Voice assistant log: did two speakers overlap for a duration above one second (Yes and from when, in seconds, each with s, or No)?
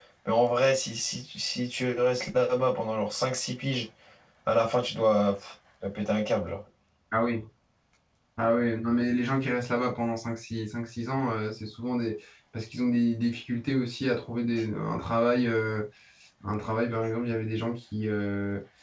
No